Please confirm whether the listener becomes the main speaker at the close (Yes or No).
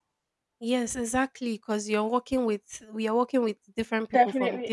Yes